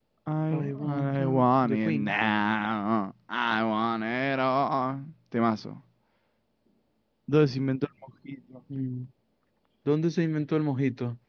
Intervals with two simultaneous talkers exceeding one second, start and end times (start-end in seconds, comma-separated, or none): 0.5-2.2